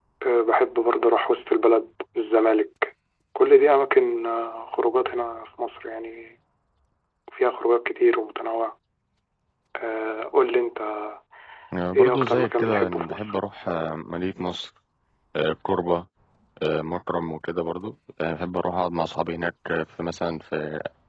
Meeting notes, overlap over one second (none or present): present